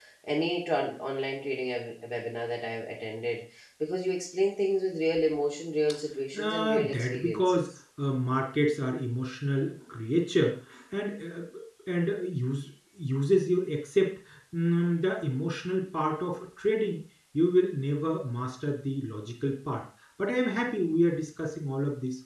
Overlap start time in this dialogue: 6 s

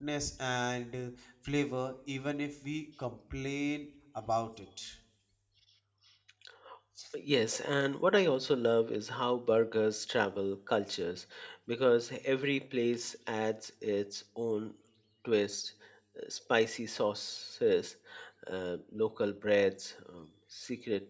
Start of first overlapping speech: none

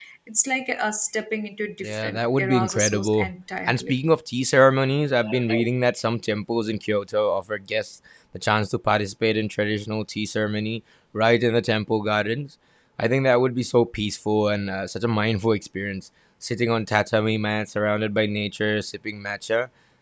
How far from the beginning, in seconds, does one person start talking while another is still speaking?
2 s

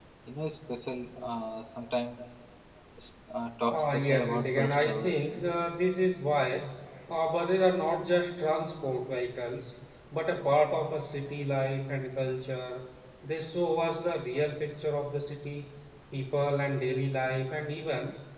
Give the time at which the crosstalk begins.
4 s

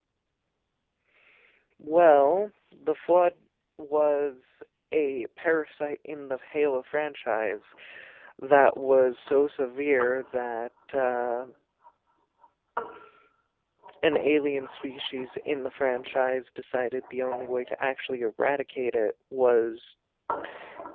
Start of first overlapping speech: none

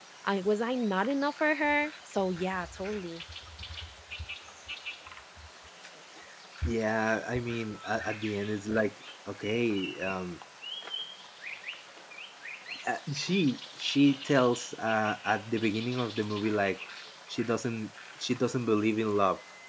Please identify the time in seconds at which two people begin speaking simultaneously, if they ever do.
none

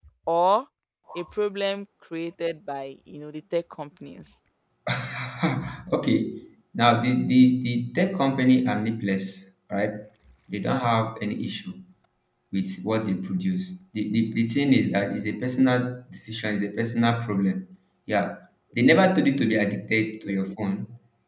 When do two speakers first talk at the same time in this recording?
none

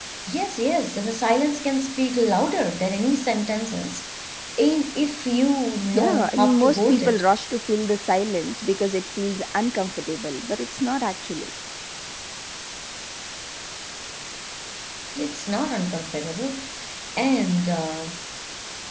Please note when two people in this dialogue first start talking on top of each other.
6 s

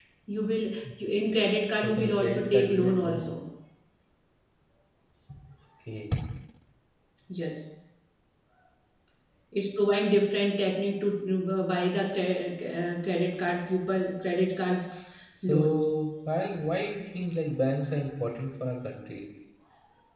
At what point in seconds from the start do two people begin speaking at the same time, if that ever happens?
2 s

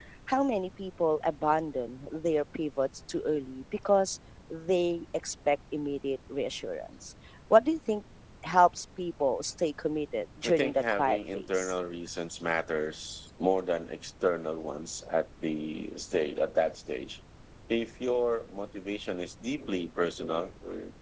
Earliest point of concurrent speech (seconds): 10 s

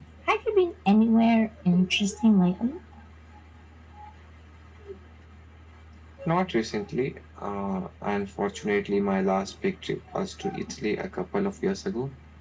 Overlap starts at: none

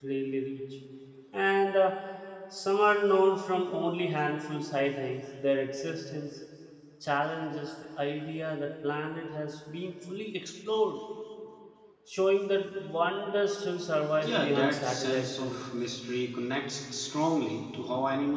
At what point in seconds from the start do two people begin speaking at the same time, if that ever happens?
14 s

